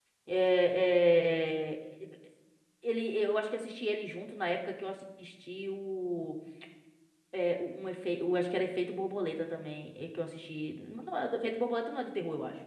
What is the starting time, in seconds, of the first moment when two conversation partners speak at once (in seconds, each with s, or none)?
none